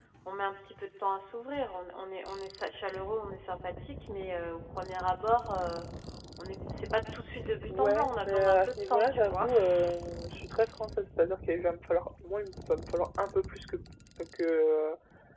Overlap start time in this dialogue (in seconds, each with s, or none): 7.7 s